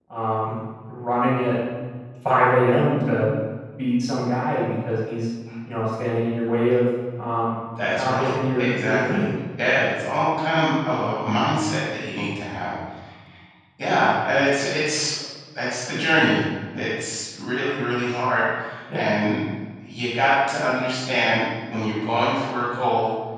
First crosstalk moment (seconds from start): 7.8 s

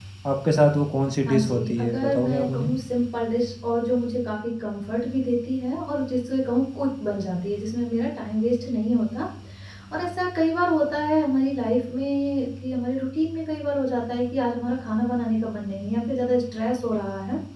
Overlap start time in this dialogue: 1.3 s

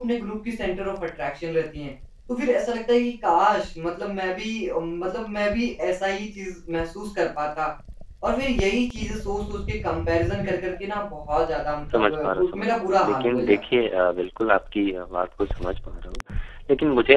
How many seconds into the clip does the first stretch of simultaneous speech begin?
11.9 s

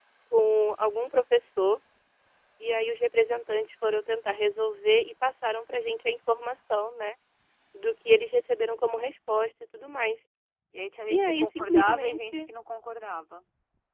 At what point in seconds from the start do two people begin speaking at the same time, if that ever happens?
11.1 s

